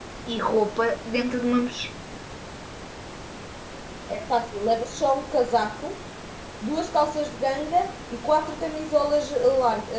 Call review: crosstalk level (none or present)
none